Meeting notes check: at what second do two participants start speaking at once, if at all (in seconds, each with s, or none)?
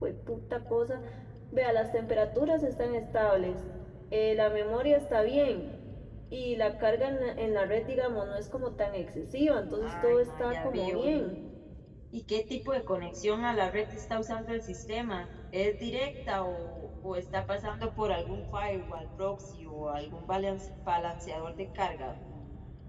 9.8 s